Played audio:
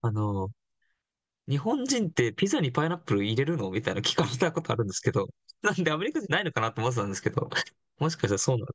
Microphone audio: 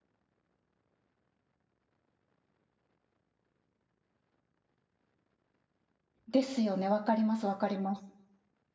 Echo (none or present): none